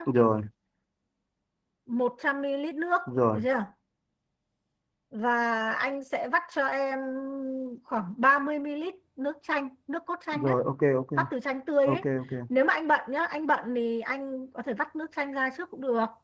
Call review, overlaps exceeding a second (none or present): none